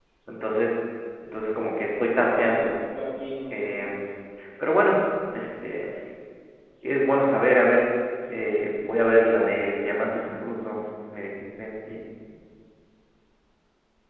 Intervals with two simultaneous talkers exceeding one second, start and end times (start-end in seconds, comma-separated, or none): none